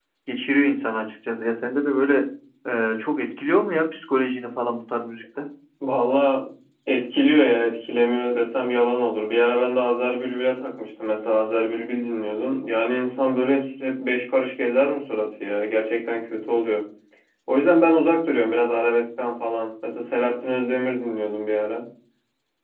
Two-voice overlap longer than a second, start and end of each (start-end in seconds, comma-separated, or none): none